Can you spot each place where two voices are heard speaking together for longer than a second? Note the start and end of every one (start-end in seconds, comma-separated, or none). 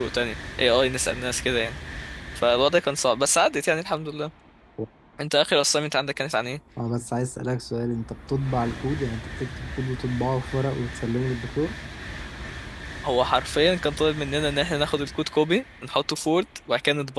none